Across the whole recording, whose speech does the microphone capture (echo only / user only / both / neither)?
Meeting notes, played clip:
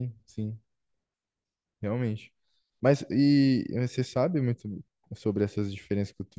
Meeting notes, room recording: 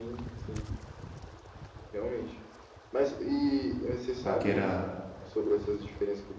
both